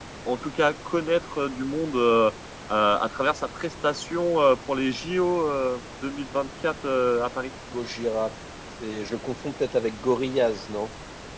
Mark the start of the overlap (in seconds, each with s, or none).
none